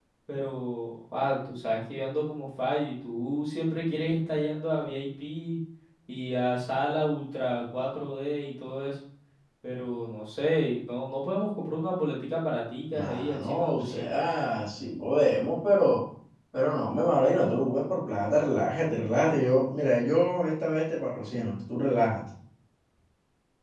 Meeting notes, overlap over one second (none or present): present